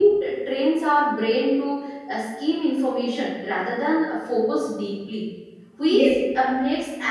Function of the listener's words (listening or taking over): listening